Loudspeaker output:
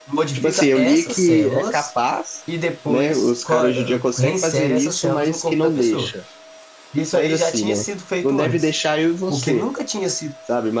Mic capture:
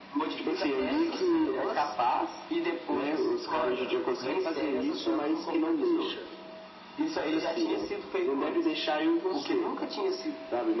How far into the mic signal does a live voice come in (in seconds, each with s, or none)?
none